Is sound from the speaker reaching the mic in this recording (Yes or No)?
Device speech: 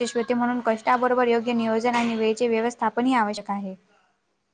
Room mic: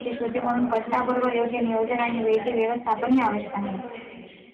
Yes